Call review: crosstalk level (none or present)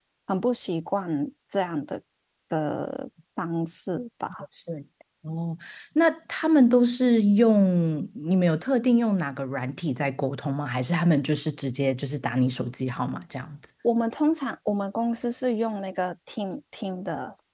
none